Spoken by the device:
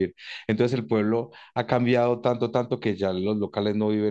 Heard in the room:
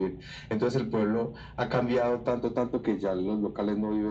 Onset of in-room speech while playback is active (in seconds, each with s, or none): none